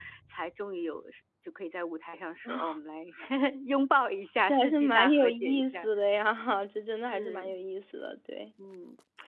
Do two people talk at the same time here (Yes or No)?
Yes